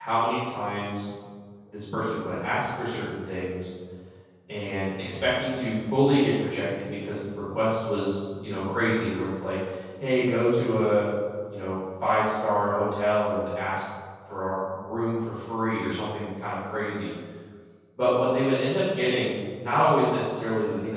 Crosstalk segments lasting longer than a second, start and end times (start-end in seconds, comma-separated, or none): none